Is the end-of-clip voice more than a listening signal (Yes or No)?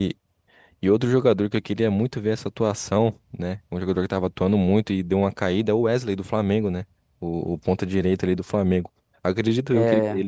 No